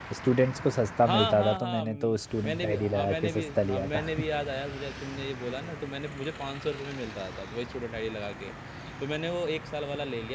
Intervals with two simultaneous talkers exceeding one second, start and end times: 1.1-4.1

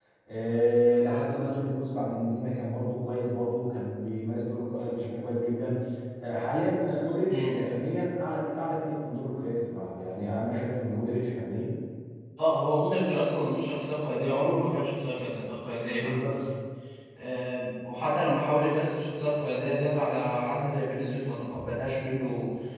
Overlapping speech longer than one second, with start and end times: none

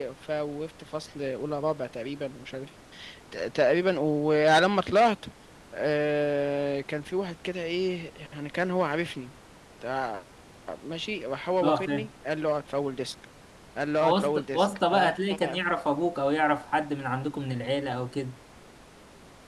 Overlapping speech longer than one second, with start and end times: 14.0-15.6

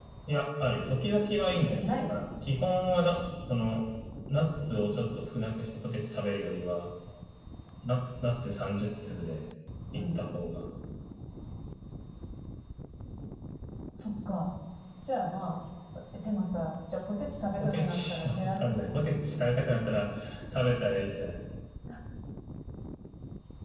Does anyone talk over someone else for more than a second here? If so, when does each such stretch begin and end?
17.6-19.1

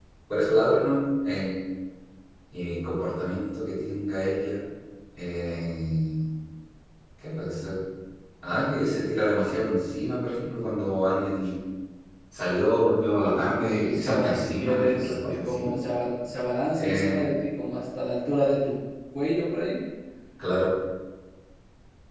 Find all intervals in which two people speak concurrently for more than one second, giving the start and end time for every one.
13.9-15.7

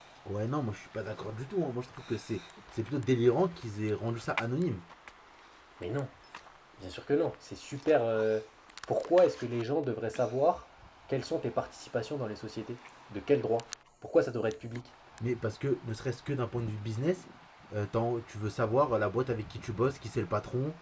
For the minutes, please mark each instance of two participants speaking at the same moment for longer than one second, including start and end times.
none

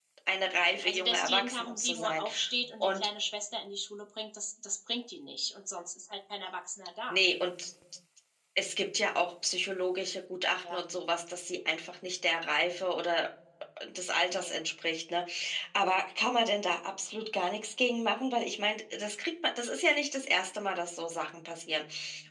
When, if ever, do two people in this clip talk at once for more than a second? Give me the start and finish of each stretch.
0.5-2.2

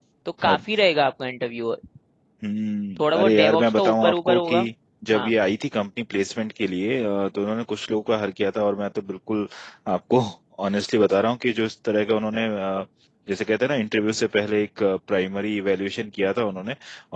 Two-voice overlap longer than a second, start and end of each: 3.0-4.5

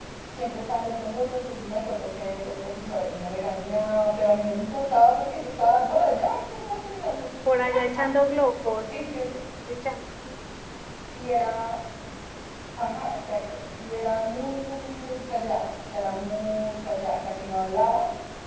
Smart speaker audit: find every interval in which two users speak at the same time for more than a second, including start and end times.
none

